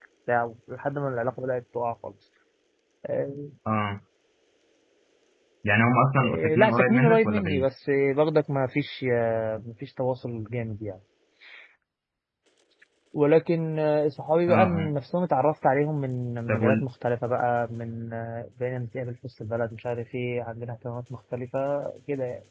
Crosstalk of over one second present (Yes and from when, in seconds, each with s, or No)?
Yes, from 6.2 s